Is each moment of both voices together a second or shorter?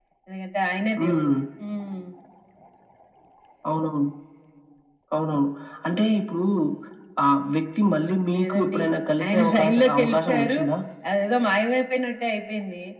No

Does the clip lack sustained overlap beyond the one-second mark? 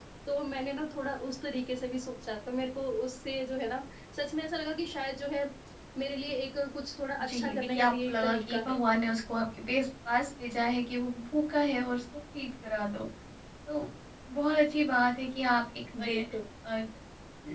No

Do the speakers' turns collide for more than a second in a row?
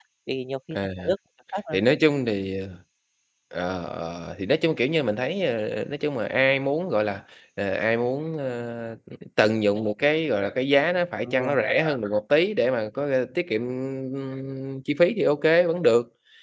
No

